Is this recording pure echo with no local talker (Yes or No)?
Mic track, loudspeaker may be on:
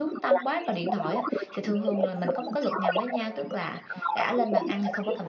No